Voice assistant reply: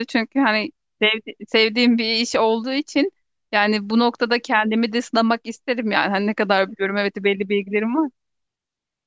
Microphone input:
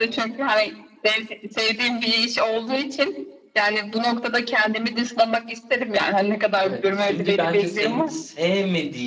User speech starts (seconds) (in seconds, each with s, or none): 6.6 s